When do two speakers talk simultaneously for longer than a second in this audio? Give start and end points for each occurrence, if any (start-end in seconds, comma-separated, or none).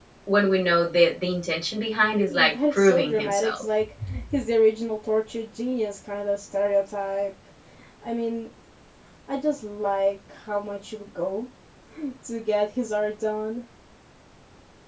2.3-3.6